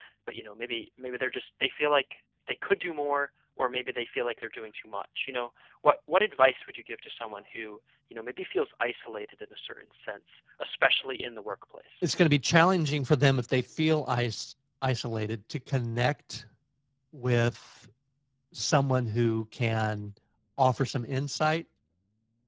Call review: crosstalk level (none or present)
none